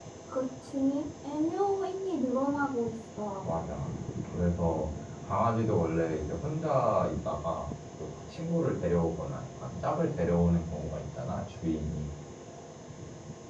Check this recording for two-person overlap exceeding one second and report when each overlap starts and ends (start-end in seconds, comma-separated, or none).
none